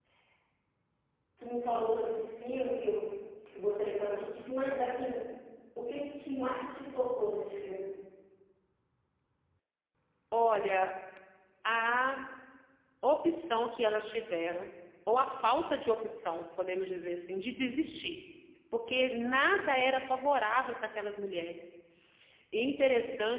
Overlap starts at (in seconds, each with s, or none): none